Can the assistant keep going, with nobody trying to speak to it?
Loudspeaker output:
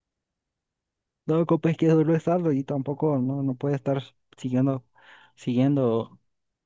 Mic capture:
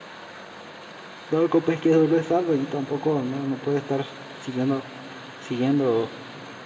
Yes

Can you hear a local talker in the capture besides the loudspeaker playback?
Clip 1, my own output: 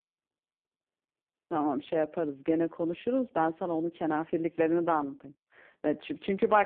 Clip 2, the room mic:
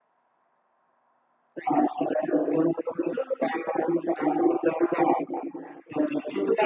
No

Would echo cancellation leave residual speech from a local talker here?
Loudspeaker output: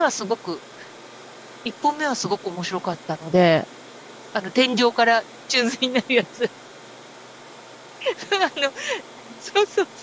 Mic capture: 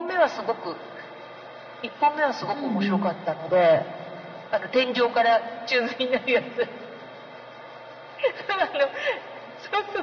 Yes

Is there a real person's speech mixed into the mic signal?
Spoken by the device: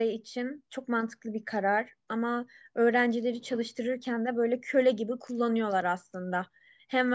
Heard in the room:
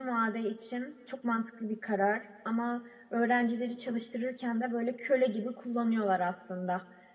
No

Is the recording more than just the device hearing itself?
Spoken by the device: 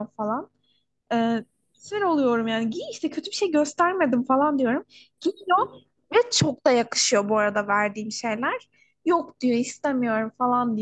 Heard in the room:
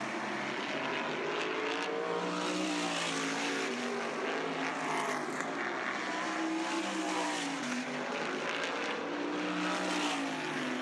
No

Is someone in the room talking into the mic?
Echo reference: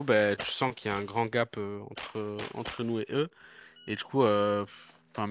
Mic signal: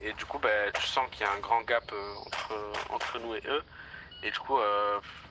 No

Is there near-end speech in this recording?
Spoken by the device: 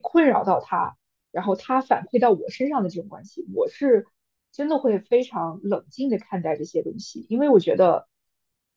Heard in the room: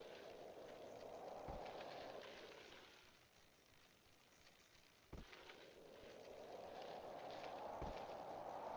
No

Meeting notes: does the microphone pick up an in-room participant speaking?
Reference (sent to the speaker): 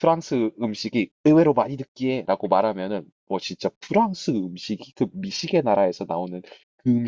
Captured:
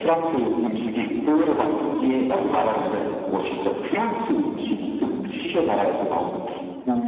No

